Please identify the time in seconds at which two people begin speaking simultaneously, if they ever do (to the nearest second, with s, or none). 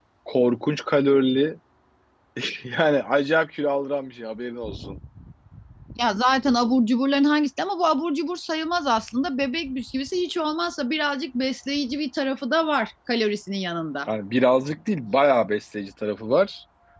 none